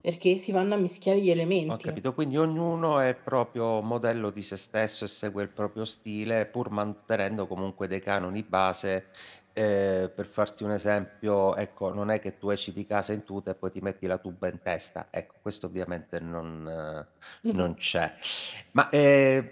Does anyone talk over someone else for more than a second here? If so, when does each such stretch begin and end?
none

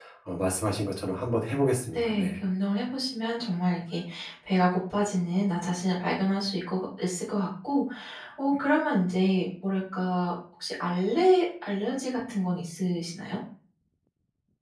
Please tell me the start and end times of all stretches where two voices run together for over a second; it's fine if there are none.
none

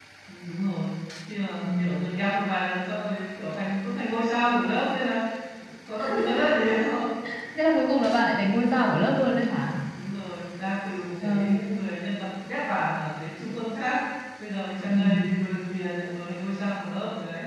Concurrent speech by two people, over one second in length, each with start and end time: none

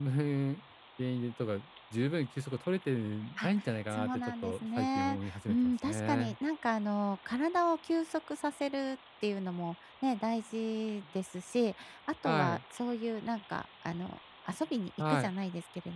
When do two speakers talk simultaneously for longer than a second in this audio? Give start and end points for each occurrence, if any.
3.9-6.3

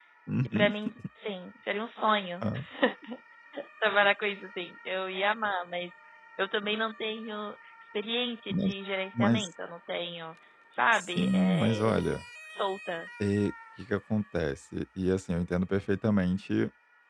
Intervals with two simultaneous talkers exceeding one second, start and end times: 10.9-12.2

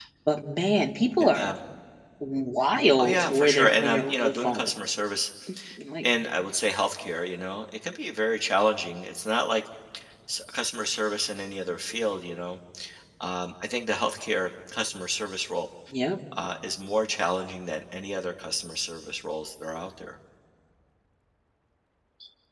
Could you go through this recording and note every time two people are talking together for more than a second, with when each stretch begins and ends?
3.0-4.7

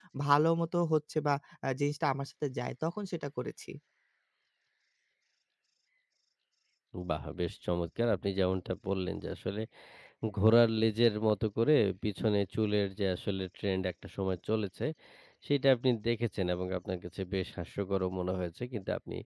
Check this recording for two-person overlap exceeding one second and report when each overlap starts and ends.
none

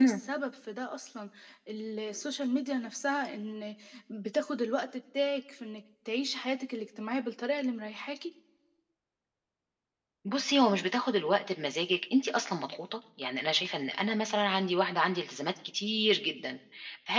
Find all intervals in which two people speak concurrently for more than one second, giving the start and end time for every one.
none

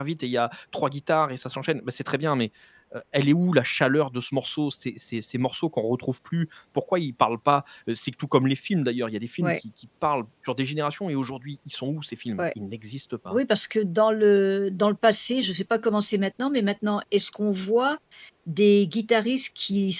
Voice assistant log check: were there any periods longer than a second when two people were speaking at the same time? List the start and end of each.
none

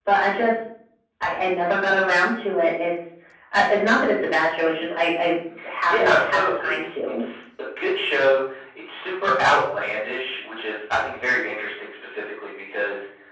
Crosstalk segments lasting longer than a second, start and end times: 5.9-7.2

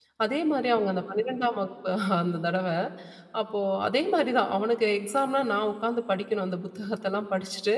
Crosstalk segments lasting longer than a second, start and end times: none

